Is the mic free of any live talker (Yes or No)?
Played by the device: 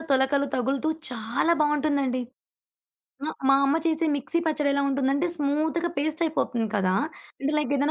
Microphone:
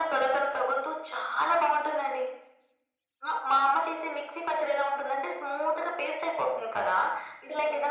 Yes